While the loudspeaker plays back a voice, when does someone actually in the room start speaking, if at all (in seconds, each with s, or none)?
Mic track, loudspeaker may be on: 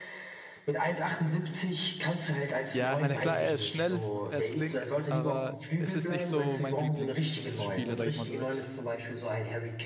2.7 s